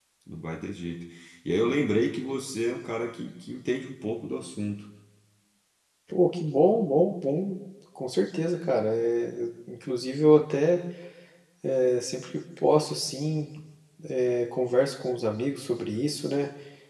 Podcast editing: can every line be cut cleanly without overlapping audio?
Yes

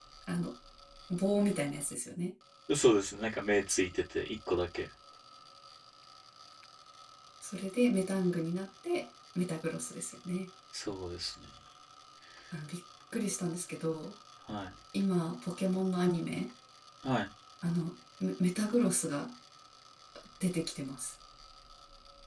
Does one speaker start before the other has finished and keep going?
No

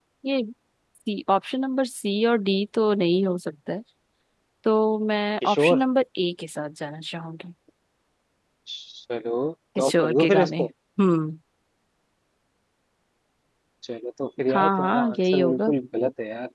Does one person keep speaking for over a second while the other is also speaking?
Yes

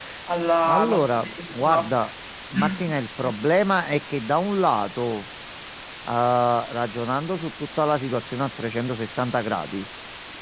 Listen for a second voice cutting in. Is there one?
Yes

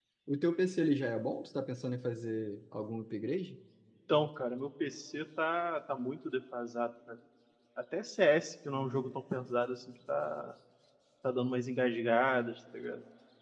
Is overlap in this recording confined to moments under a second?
Yes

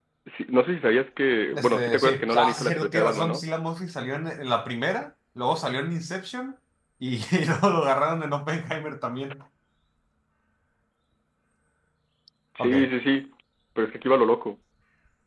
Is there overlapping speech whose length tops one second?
Yes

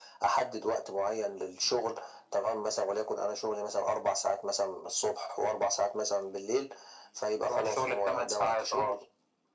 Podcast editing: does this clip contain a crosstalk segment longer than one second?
Yes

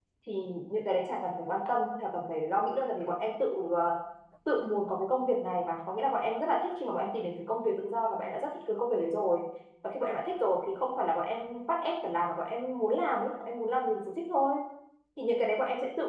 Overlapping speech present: No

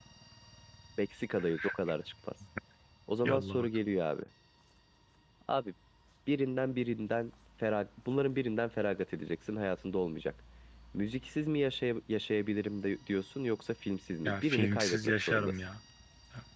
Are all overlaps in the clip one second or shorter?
No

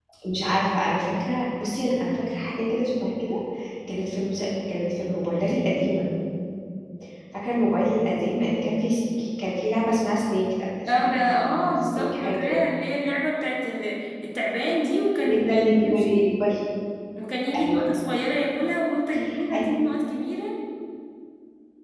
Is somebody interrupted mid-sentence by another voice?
Yes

